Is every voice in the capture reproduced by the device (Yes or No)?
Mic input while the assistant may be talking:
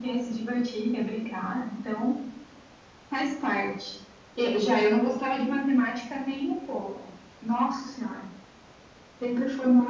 Yes